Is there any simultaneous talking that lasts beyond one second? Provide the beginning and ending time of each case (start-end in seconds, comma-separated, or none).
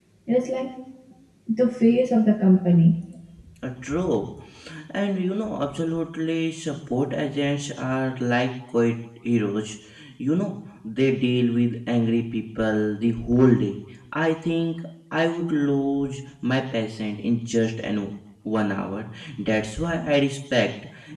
none